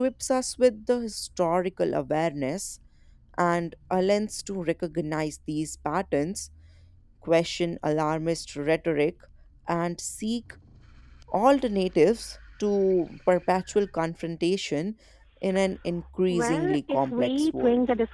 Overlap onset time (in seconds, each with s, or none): 16.3 s